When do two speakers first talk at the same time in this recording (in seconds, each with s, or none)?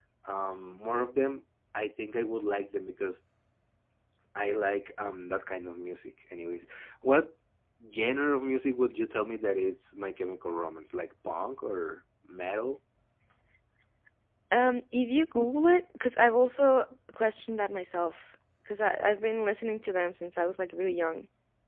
none